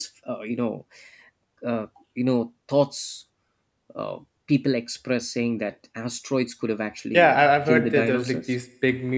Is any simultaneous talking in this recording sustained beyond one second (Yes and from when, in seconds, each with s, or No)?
Yes, from 7.1 s